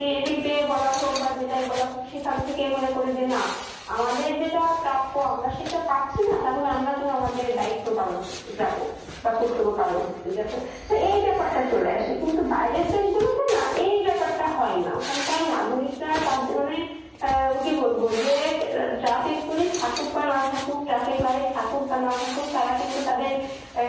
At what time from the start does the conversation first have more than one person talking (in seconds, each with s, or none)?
none